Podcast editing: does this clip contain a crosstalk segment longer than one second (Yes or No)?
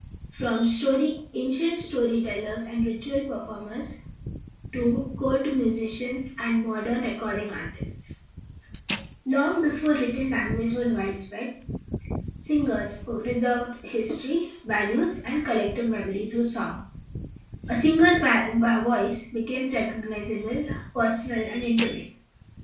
No